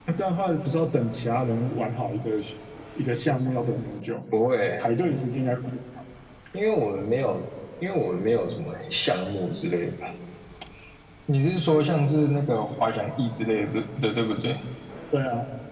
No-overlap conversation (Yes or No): Yes